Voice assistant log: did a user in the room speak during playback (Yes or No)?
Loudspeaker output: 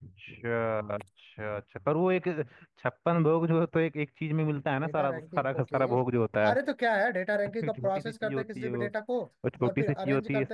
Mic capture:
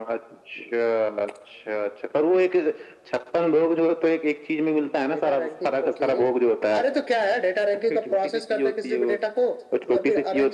No